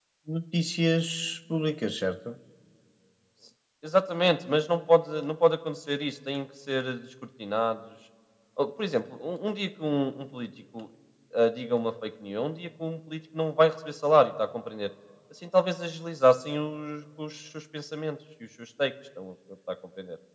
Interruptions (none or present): none